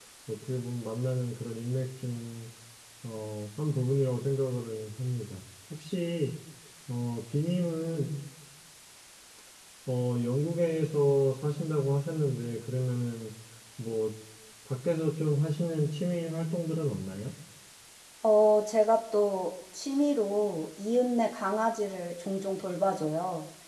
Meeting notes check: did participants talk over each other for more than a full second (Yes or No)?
No